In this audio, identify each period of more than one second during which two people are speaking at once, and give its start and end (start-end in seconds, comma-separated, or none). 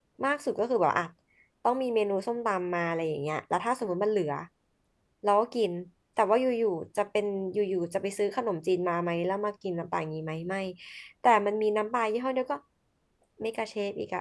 none